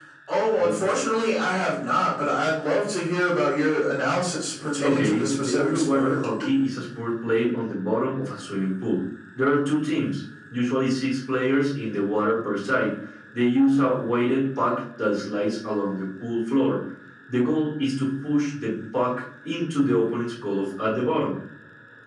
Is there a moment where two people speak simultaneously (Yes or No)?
Yes